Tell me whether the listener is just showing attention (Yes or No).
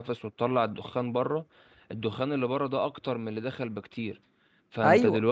Yes